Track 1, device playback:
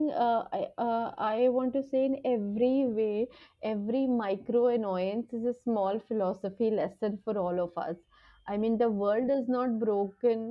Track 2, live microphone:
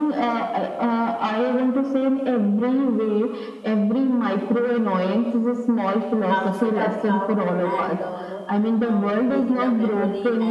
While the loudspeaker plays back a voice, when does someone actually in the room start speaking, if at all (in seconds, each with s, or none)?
6.2 s